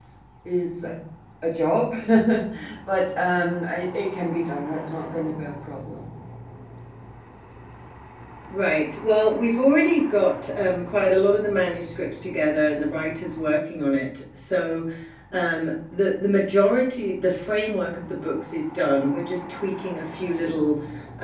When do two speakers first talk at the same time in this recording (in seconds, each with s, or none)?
none